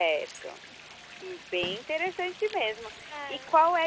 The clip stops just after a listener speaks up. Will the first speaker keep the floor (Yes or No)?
Yes